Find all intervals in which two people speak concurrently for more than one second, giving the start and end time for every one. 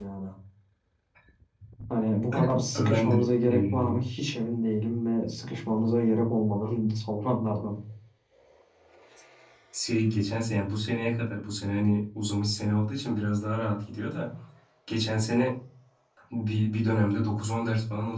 2.7-4.0

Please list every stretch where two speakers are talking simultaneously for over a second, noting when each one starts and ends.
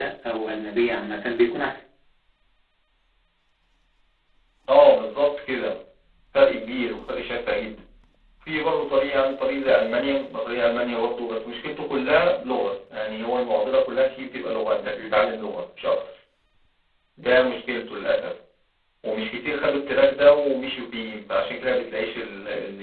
none

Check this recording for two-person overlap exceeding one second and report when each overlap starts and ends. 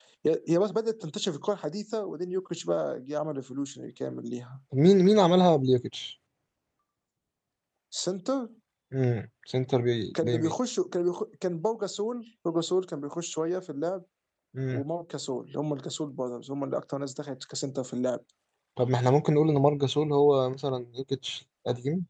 none

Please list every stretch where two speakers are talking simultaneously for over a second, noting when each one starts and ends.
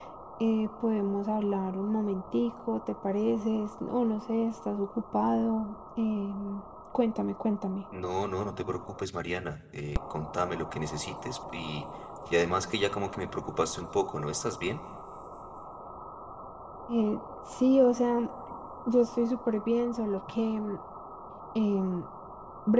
none

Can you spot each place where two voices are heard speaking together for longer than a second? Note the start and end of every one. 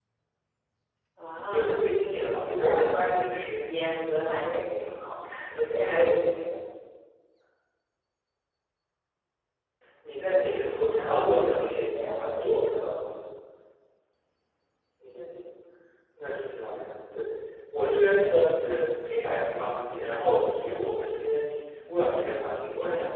10.9-12.2

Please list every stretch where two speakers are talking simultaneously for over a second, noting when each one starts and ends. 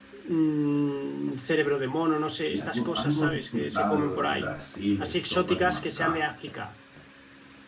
2.4-4.5, 5.0-6.3

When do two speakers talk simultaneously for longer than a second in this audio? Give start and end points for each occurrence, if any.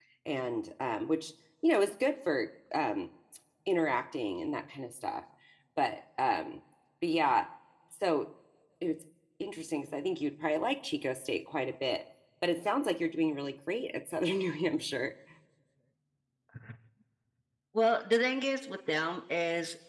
none

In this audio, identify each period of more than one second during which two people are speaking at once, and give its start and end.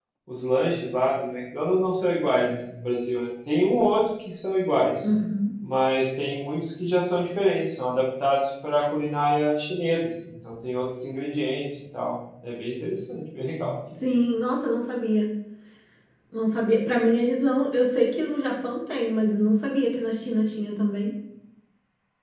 none

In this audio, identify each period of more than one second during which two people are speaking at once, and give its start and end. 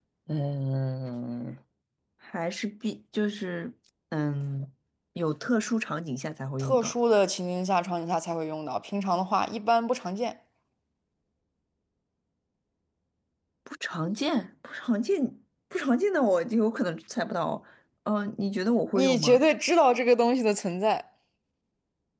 none

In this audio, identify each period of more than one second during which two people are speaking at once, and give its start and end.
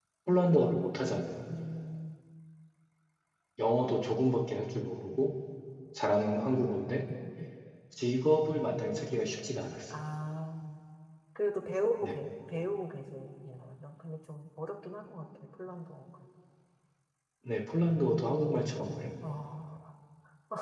none

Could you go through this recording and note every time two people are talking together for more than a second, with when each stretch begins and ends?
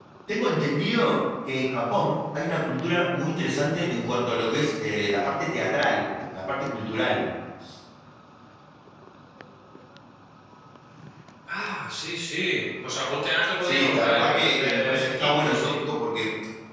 13.6-15.8

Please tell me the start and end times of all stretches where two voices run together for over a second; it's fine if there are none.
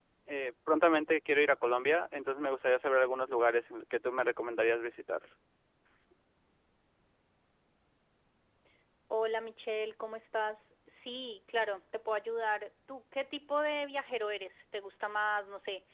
none

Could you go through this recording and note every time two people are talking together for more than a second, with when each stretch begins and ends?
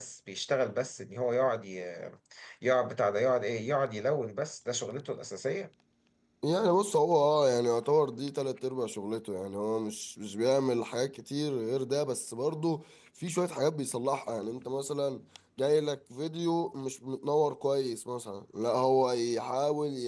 none

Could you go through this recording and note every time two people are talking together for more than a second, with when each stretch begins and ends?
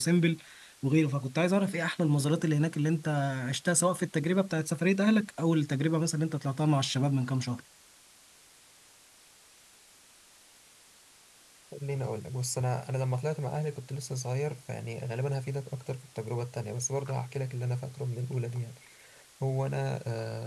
none

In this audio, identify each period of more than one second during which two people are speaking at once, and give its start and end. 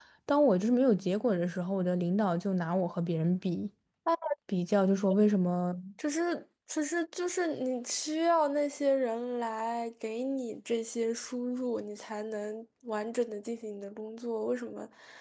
none

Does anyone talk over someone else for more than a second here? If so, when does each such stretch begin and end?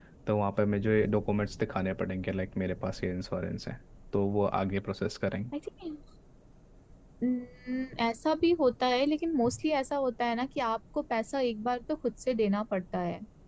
none

